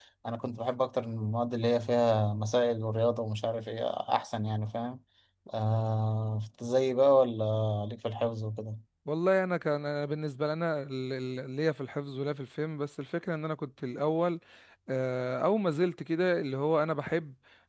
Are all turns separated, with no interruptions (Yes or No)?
Yes